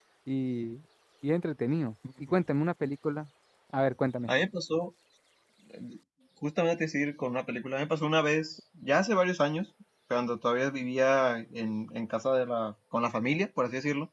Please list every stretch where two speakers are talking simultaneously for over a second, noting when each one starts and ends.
none

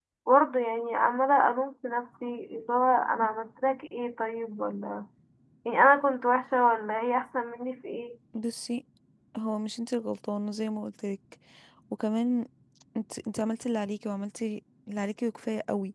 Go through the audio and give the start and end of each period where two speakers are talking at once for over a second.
none

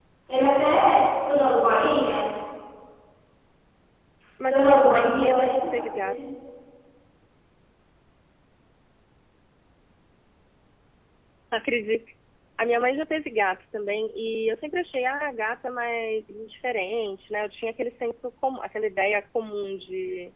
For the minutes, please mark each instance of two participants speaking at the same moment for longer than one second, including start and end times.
4.5-6.2

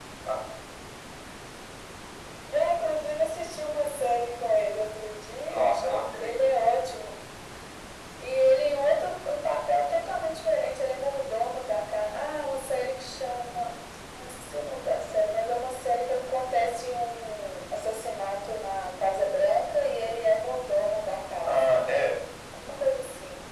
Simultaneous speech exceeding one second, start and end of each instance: none

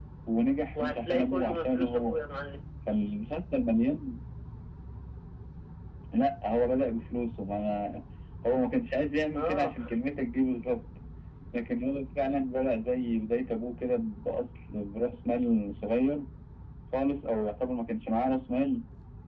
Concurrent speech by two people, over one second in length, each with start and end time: 0.8-2.3

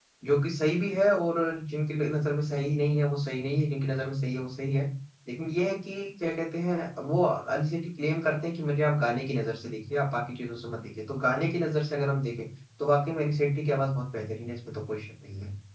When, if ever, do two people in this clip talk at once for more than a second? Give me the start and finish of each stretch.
none

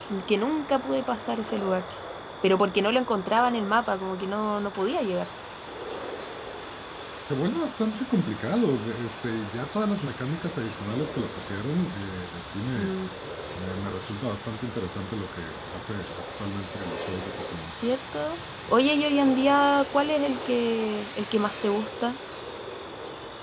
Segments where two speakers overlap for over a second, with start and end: none

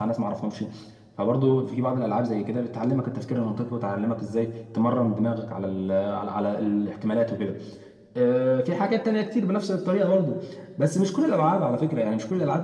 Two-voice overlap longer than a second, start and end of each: none

